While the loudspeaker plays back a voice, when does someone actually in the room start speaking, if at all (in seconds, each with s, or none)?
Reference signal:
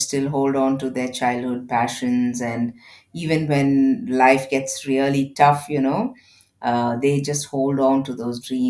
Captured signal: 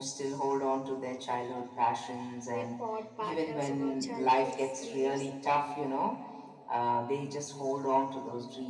2.5 s